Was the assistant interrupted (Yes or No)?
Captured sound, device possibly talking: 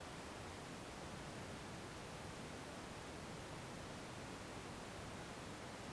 No